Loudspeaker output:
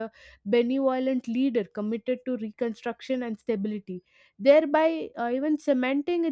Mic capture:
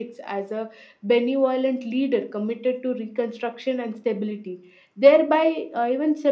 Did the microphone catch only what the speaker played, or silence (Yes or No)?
Yes